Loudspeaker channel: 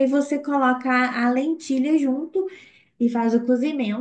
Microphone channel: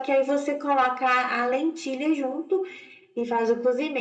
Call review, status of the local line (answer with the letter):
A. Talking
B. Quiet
B